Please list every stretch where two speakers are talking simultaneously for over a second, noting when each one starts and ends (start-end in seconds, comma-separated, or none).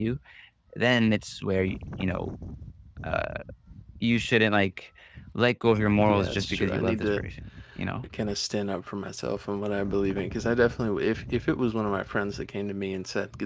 6.0-7.2